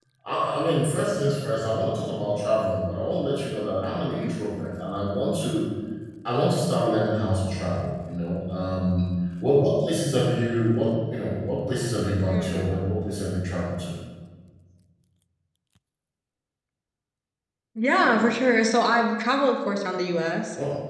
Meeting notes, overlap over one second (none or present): none